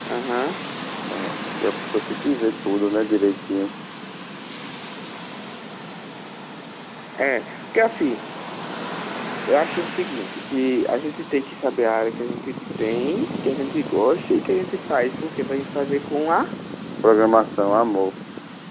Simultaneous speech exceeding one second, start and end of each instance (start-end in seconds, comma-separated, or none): none